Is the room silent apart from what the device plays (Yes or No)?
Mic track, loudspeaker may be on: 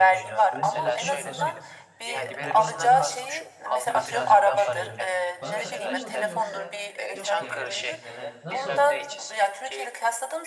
No